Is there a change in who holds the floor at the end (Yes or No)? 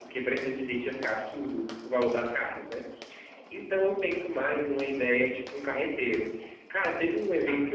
No